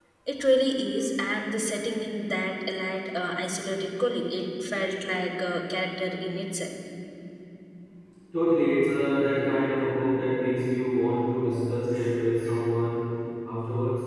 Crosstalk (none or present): none